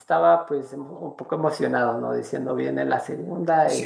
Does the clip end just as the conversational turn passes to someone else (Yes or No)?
Yes